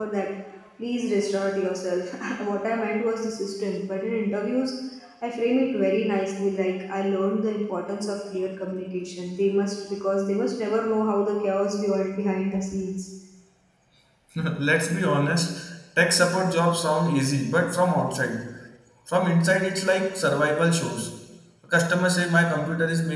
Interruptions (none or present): none